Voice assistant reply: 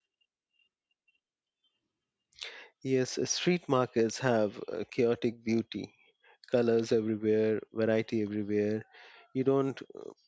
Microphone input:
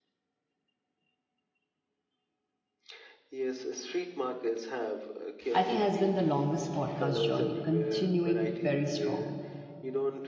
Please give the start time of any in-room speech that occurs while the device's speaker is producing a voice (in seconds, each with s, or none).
5.5 s